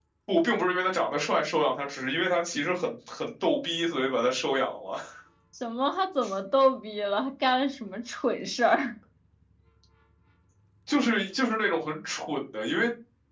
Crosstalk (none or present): none